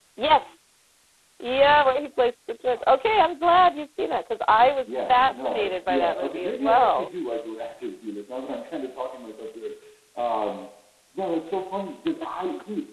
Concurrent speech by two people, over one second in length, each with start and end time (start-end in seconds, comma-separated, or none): 4.8-7.1